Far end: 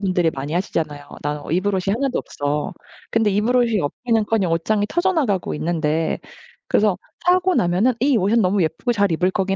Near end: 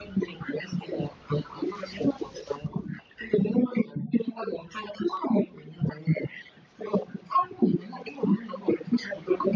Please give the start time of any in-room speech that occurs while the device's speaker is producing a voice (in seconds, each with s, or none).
none